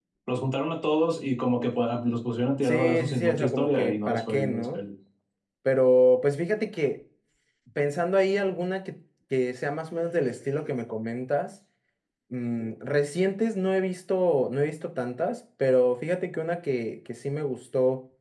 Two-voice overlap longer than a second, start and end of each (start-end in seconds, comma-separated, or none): 2.6-4.8